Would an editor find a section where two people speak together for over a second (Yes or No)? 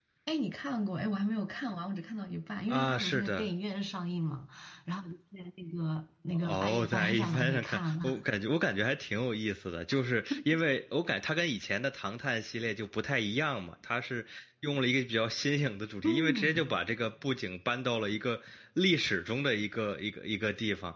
Yes